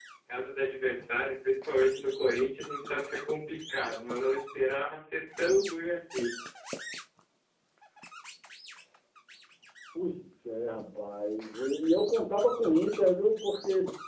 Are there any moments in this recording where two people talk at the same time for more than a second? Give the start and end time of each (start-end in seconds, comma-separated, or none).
none